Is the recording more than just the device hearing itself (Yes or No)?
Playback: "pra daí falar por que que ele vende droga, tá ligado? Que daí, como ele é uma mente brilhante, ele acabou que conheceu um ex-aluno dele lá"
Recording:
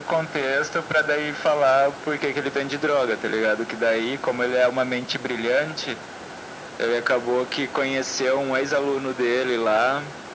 No